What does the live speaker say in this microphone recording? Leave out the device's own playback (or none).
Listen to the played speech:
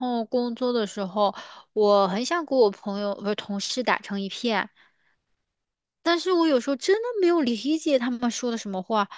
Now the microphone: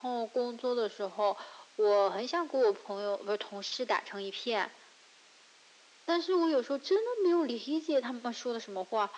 none